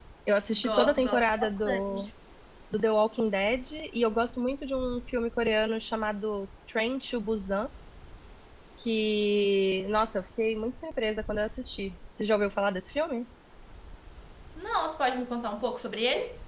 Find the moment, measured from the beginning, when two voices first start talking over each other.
0.5 s

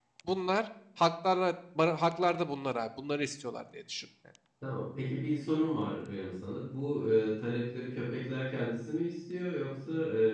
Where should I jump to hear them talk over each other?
none

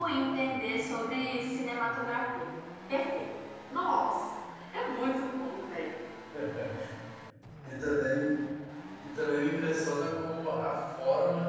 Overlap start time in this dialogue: none

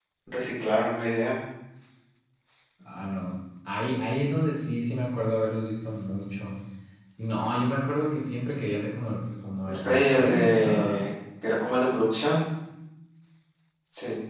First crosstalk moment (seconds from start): 9.7 s

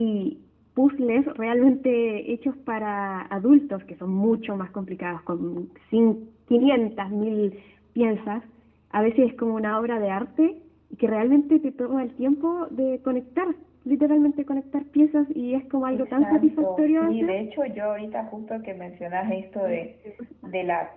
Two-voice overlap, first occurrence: 15.9 s

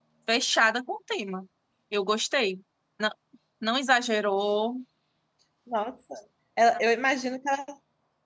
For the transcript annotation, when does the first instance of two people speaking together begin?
none

